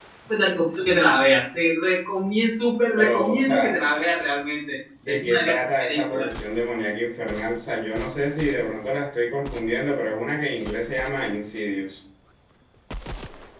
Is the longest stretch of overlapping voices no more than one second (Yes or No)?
No